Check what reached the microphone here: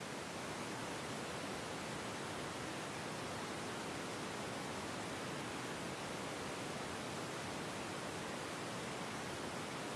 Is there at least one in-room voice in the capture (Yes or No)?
No